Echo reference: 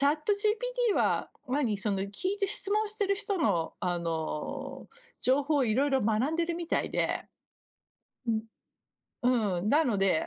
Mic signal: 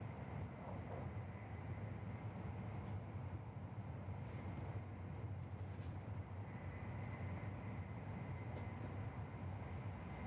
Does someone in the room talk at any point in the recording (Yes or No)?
No